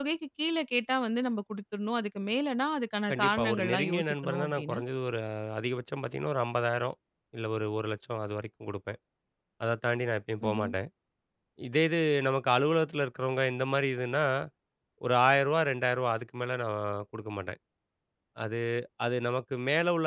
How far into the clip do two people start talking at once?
3.1 s

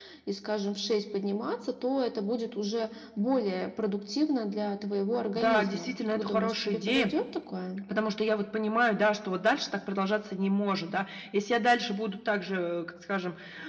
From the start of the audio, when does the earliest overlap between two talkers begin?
5.3 s

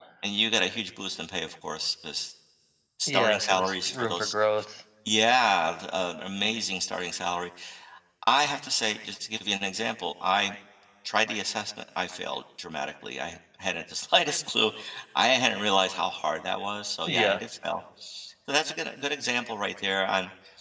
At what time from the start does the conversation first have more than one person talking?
3.1 s

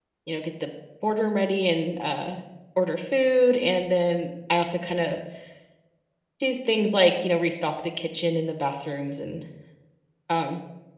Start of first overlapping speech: none

